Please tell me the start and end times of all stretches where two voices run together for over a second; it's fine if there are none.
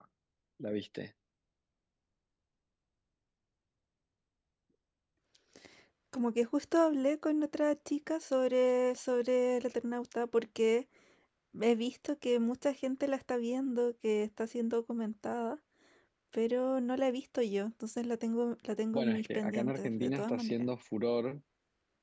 18.9-20.5

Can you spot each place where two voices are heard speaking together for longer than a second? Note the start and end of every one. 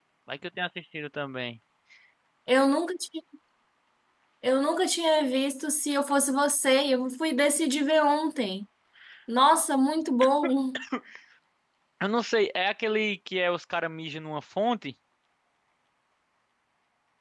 none

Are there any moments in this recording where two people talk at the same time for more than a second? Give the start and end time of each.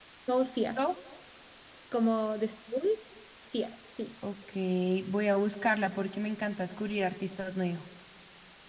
none

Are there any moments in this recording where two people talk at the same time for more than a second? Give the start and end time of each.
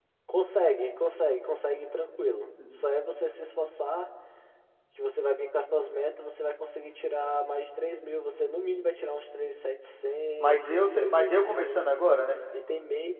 10.4-11.8

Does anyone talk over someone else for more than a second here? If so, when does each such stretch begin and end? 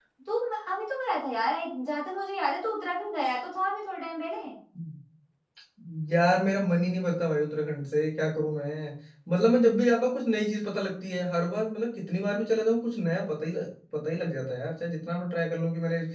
none

